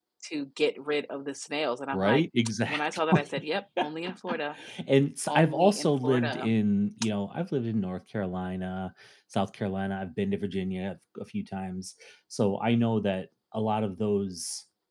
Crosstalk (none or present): present